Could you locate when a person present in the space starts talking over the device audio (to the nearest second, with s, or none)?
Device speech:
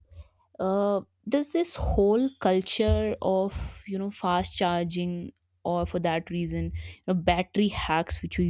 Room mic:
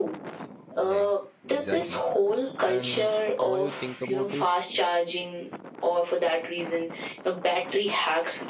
1 s